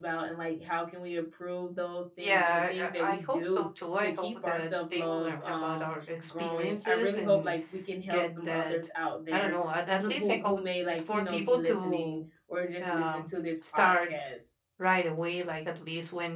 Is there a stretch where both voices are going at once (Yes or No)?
Yes